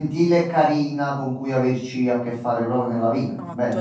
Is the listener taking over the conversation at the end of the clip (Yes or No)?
Yes